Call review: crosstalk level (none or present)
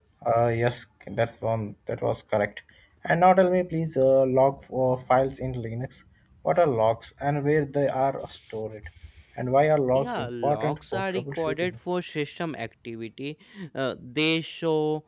present